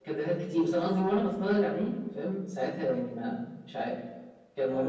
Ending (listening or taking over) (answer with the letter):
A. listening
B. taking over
B